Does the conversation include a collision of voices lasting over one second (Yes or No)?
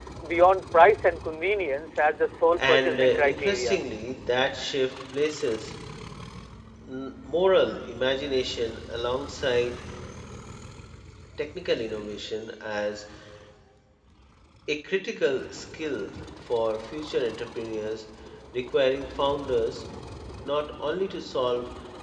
Yes